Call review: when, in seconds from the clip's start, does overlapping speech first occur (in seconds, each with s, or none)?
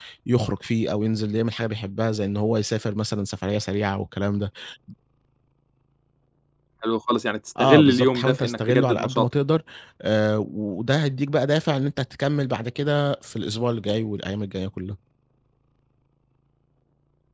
7.6 s